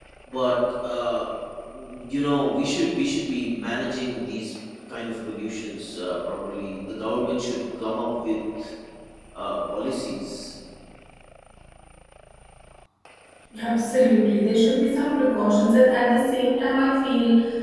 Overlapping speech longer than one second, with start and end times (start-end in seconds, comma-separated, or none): none